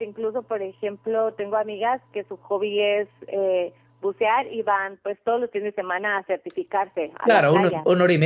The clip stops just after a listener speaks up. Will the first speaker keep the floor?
No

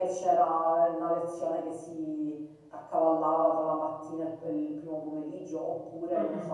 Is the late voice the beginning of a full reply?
No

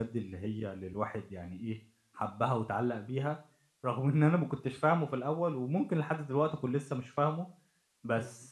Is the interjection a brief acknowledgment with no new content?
Yes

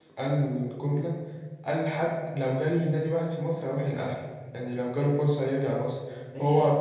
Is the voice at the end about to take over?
No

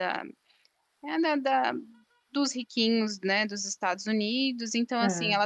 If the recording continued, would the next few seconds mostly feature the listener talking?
No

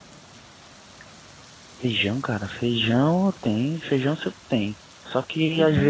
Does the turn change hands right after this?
No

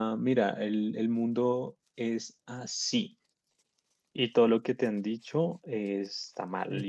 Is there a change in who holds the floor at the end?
No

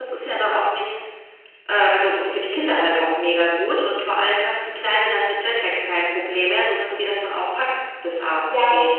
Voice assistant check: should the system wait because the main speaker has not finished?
No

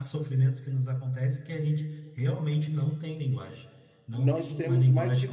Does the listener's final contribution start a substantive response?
Yes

